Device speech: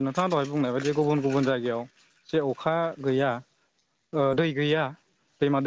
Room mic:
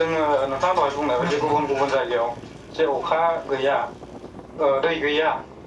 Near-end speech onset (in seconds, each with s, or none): 1.1 s